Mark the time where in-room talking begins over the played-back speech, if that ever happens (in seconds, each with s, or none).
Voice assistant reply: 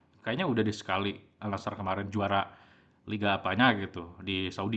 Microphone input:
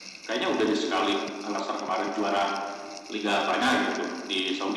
none